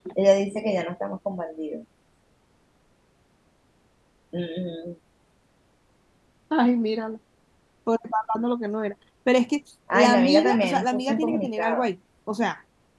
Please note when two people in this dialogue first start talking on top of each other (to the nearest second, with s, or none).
10 s